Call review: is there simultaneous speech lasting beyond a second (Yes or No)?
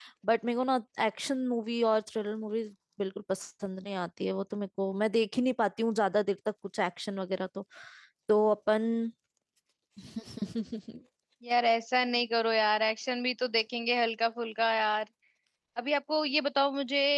No